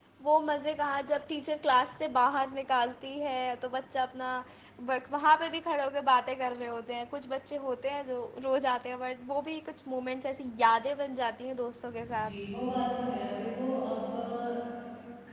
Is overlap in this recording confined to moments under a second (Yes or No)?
Yes